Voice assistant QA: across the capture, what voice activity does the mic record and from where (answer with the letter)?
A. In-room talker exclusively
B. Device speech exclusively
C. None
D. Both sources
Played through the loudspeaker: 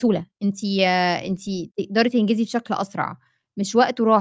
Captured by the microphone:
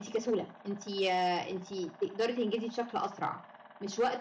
B